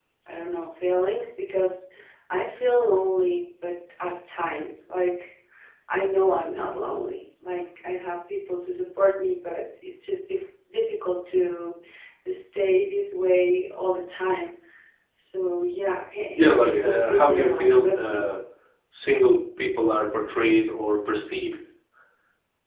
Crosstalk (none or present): present